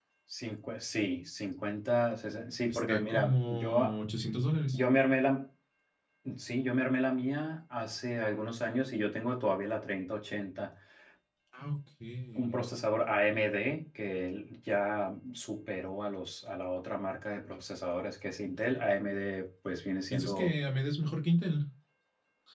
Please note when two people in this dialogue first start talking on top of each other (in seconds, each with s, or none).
2.7 s